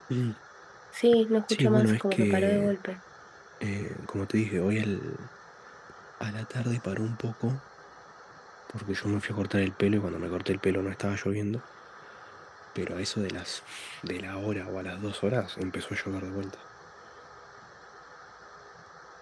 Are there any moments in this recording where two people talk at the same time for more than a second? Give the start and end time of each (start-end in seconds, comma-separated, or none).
1.5-2.7